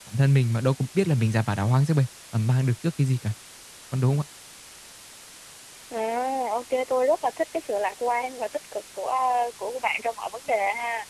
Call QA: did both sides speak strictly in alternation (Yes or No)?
Yes